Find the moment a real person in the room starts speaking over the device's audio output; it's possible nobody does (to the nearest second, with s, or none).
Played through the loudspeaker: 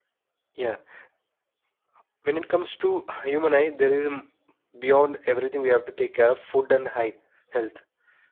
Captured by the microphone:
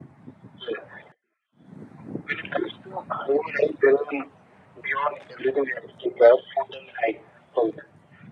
none